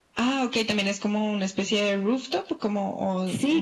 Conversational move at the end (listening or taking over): taking over